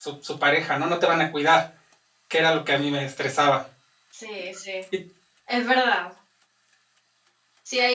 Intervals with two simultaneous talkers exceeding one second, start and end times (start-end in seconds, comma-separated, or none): none